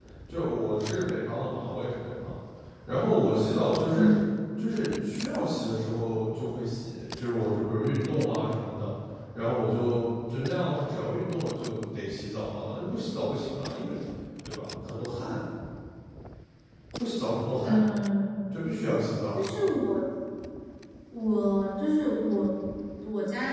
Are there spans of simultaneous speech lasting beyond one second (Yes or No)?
No